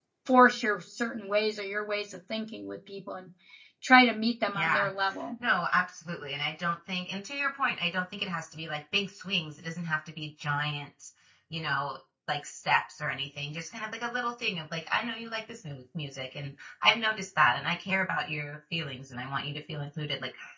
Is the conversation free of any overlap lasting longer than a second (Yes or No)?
Yes